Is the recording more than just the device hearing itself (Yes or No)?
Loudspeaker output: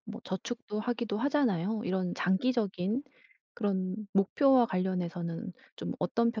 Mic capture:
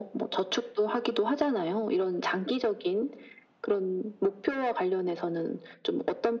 No